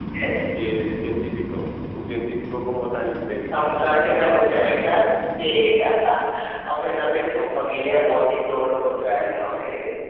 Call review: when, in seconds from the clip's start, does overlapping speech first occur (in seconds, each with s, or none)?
3.5 s